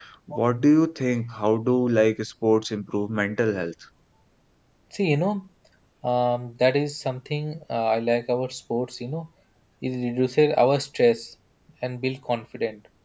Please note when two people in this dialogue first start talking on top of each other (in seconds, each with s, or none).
none